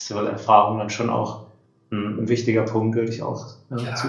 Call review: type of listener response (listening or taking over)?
taking over